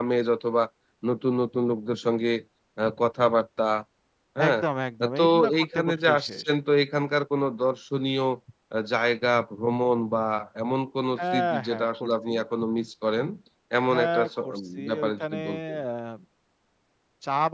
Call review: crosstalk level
present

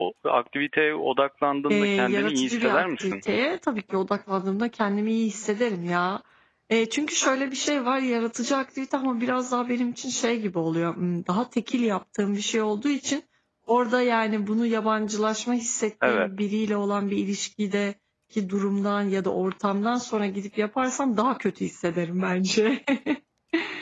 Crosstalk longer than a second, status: present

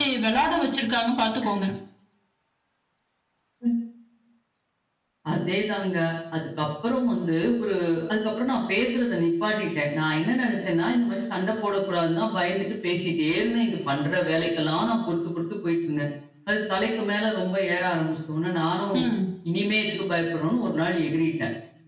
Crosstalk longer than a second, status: none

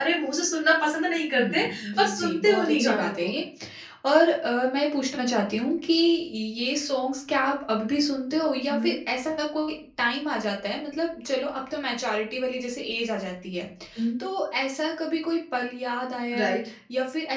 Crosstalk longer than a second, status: present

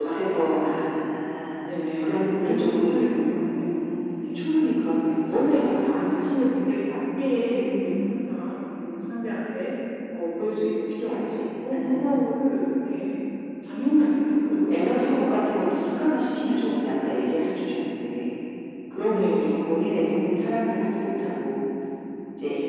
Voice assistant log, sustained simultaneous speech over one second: present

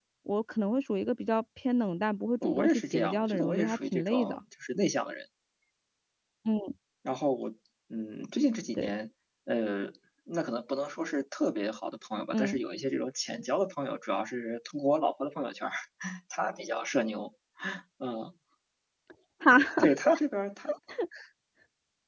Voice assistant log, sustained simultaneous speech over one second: present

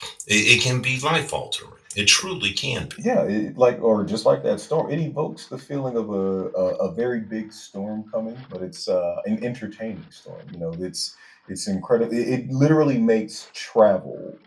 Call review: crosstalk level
none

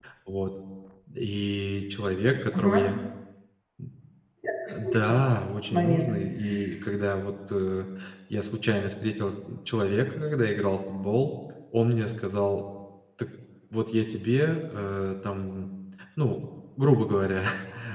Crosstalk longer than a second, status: none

